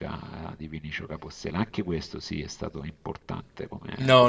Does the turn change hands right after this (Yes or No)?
Yes